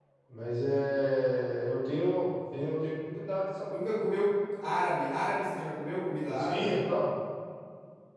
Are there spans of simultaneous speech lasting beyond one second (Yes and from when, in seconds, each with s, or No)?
No